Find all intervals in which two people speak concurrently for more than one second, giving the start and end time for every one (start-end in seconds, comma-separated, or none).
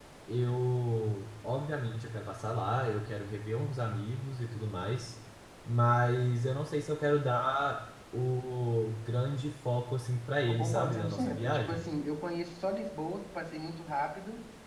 10.4-11.9